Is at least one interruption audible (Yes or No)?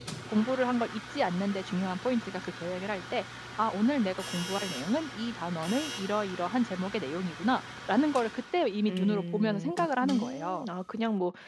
Yes